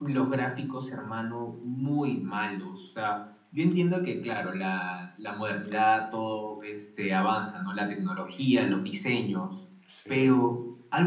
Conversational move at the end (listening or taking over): listening